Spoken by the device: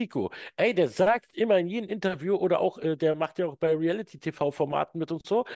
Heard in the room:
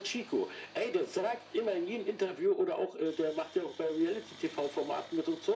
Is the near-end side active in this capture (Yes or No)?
No